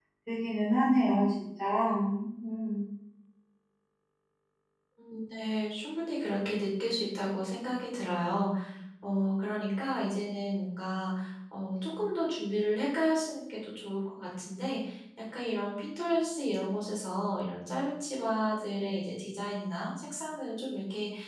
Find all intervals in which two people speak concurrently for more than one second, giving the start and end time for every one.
none

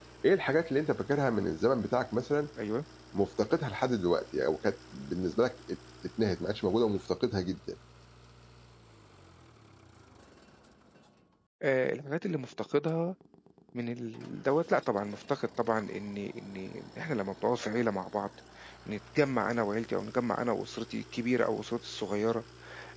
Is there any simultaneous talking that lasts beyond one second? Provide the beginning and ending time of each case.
none

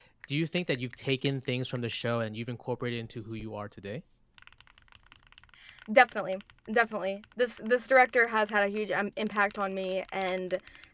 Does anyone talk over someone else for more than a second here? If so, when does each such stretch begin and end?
none

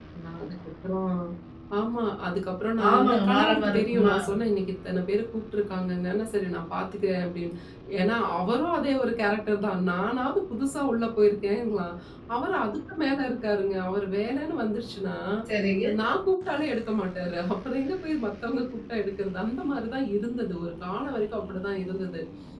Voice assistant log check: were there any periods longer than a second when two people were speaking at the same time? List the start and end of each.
2.9-4.1

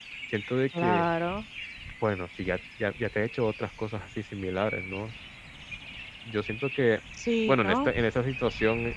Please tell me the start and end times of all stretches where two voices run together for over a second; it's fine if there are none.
none

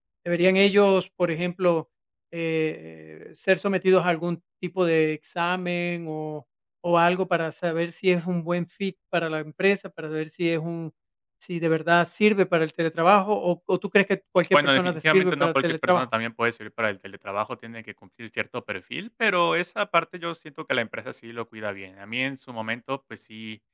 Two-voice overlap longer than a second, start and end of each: 14.5-16.1

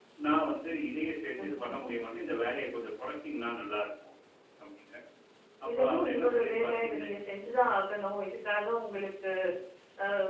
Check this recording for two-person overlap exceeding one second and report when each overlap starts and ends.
5.8-7.1

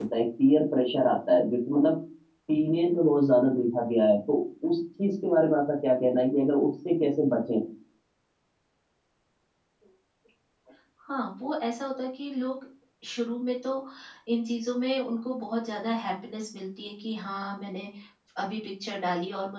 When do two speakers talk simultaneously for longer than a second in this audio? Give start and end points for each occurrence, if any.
none

